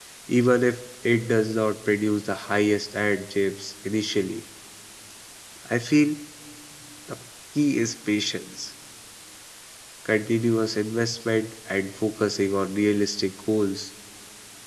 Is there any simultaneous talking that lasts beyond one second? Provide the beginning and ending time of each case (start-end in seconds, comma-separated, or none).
none